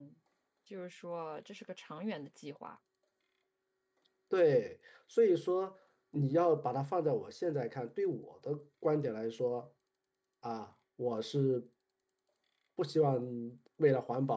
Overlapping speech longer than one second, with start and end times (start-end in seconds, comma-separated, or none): none